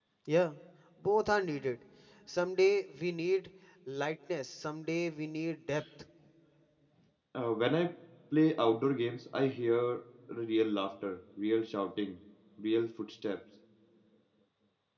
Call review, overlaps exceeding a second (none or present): none